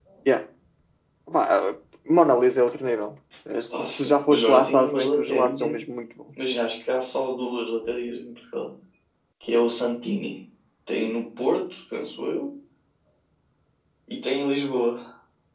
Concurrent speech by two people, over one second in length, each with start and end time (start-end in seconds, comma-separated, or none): 3.7-5.8